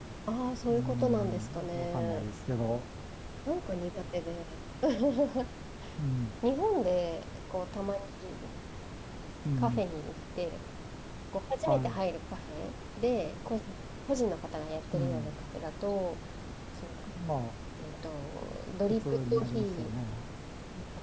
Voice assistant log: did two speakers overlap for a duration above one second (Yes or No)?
Yes